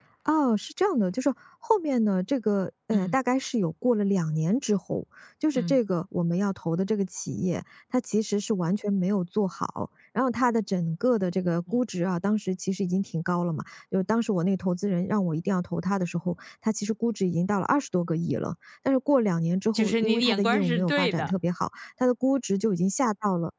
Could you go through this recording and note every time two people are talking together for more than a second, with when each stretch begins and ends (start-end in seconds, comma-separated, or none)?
19.7-21.3